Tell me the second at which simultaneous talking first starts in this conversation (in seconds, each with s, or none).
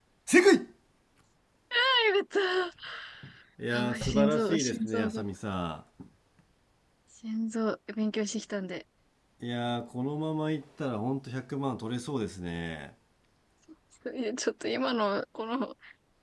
3.7 s